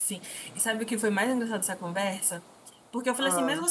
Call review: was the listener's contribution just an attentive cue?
Yes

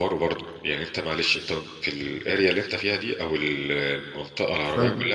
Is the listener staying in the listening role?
Yes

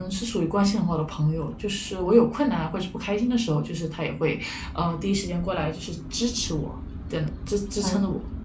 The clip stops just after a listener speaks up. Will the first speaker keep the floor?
No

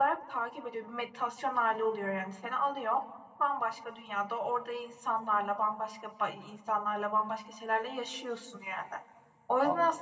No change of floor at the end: Yes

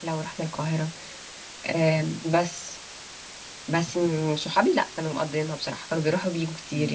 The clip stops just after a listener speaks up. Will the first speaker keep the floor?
Yes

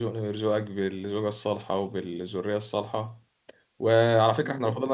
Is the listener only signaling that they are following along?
Yes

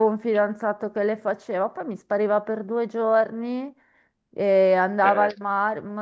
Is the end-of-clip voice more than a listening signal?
No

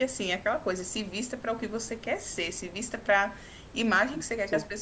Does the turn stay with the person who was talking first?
Yes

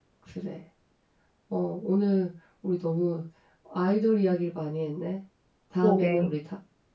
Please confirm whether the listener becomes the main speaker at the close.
No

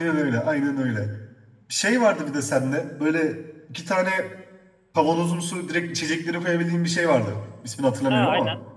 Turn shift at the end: Yes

